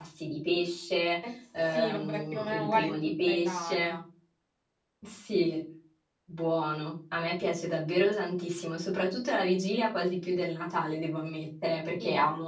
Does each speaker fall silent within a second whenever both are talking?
No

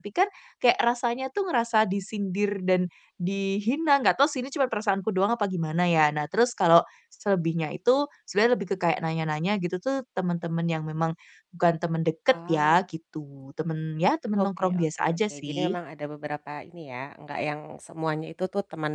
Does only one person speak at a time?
No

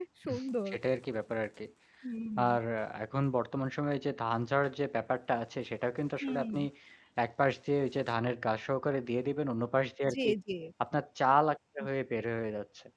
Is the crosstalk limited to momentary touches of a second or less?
Yes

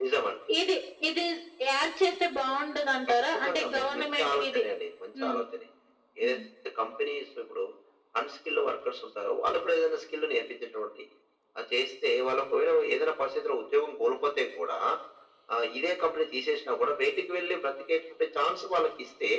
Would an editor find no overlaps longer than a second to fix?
No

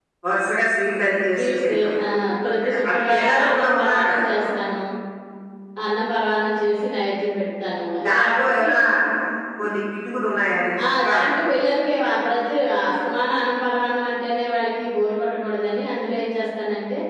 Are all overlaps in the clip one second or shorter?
No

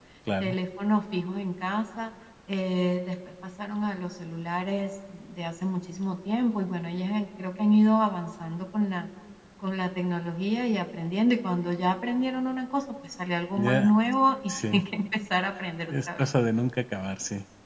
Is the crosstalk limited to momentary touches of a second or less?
Yes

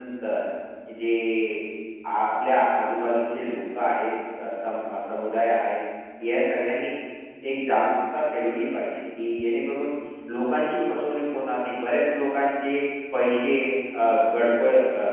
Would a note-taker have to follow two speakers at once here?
No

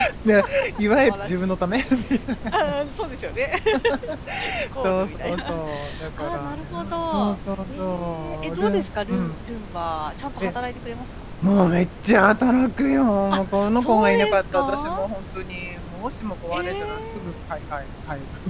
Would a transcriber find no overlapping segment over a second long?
No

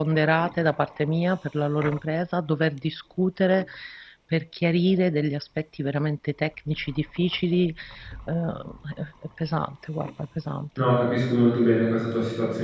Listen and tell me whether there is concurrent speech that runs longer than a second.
No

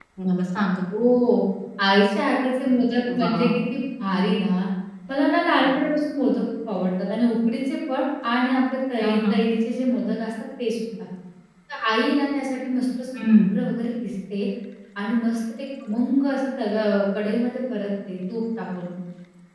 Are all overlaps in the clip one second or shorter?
Yes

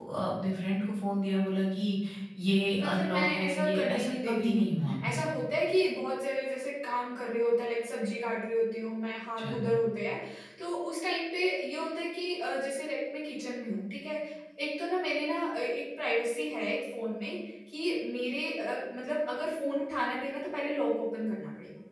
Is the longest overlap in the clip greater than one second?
Yes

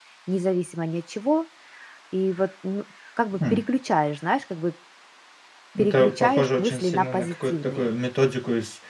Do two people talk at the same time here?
Yes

